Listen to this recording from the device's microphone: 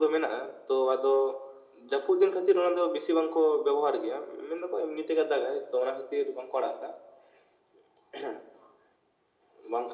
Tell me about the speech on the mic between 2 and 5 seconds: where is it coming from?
echo only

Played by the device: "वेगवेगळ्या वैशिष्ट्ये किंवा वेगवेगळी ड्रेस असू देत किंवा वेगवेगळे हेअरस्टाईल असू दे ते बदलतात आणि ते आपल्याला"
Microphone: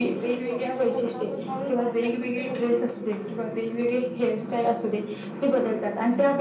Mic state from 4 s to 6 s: echo only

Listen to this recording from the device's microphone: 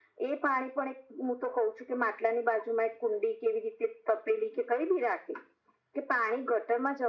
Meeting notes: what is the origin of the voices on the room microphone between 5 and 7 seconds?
echo only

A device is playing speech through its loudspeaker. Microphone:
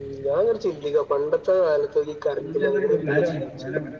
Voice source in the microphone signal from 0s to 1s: echo only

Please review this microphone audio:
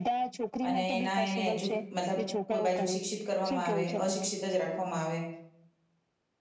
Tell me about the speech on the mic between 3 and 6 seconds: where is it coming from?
both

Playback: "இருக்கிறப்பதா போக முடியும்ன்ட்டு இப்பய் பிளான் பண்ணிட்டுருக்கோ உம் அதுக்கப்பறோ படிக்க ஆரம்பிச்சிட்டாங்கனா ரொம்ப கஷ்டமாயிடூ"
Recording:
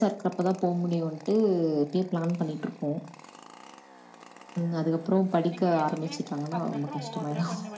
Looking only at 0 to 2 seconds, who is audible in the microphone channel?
echo only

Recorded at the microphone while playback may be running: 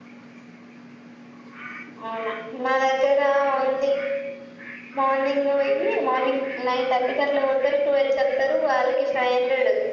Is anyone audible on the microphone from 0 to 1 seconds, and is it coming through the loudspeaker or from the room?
neither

